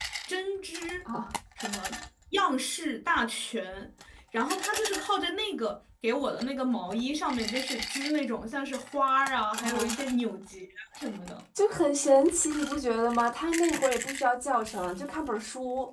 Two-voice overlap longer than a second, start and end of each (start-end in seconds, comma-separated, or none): none